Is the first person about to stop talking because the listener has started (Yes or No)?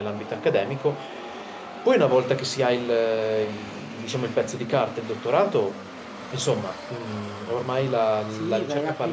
Yes